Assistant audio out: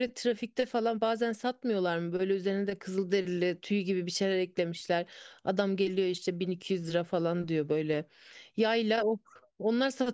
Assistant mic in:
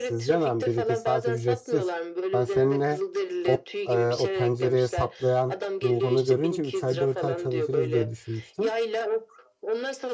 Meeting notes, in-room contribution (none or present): present